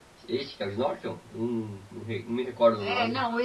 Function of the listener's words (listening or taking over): taking over